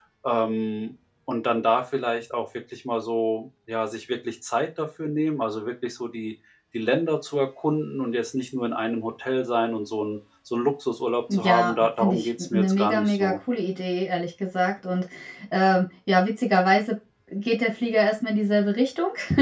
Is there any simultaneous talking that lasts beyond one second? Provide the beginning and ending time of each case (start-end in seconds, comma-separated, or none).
11.3-13.3